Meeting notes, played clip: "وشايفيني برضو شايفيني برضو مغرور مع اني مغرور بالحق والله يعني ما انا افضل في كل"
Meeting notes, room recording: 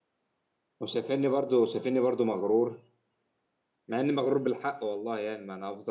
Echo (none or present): present